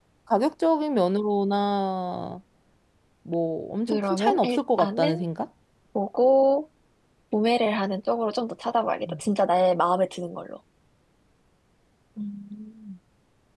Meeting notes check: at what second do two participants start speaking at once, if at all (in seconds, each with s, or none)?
3.9 s